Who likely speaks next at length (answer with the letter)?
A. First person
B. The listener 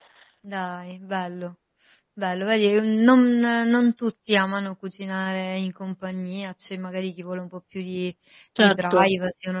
A